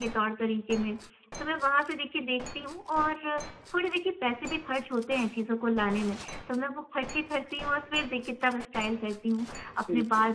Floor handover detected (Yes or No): No